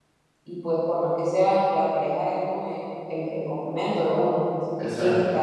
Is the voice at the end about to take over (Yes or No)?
No